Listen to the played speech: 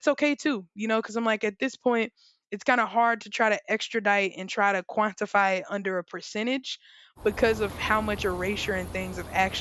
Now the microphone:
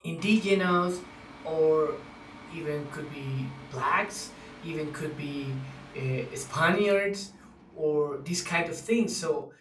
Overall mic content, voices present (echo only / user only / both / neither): user only